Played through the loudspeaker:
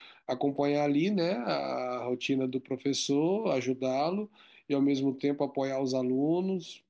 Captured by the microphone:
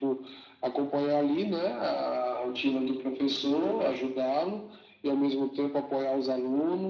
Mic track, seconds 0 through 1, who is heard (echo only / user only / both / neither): echo only